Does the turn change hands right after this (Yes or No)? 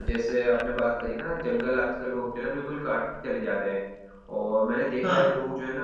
No